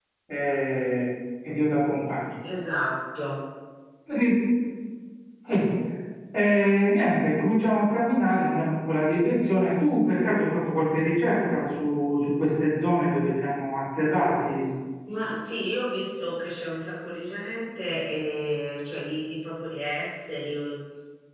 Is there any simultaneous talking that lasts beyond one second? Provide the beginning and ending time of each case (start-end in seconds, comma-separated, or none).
none